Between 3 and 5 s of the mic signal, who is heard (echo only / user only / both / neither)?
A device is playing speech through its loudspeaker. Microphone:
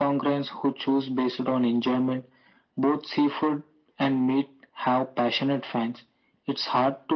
echo only